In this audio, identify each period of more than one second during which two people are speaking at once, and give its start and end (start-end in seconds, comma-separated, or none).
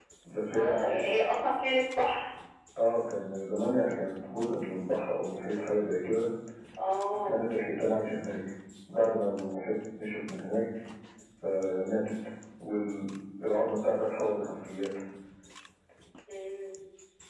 none